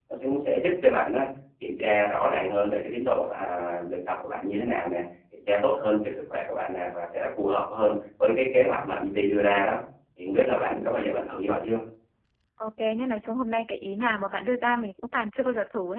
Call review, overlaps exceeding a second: none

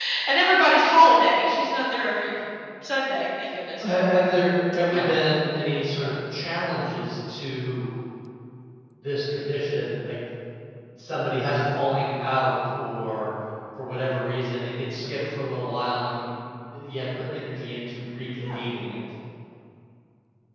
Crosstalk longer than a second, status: none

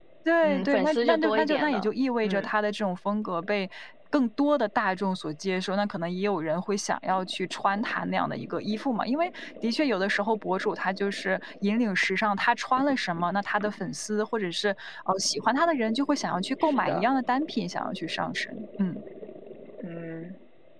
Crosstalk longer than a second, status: present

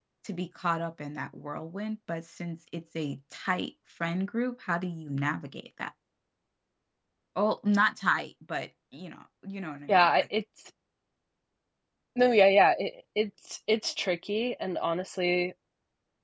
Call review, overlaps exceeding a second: none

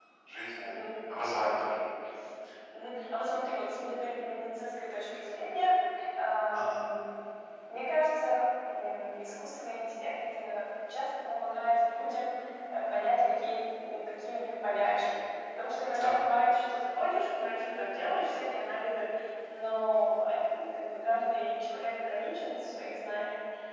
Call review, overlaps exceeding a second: none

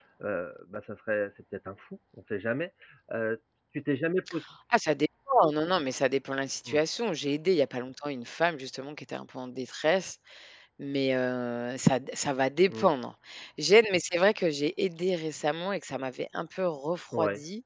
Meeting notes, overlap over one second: none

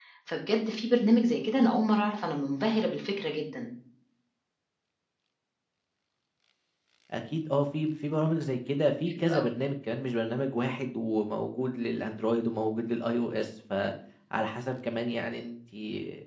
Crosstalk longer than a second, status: none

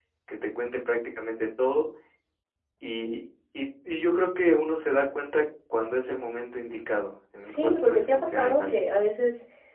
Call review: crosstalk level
present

